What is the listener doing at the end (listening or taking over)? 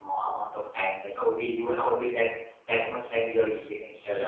taking over